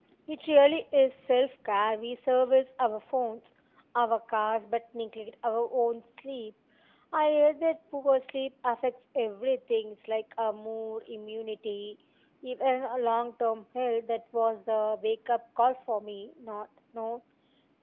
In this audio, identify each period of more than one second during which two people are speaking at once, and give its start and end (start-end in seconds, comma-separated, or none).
none